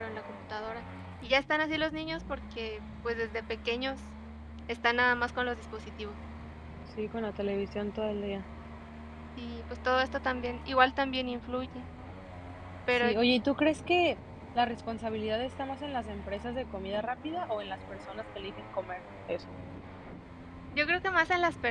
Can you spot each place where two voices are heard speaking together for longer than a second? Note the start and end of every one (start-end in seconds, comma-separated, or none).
none